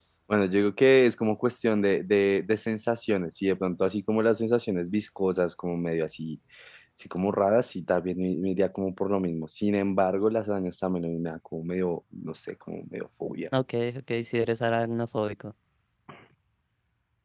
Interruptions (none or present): none